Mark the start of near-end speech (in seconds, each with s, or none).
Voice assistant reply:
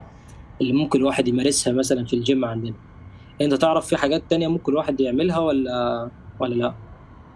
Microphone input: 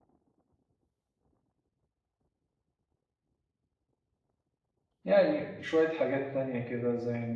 5.0 s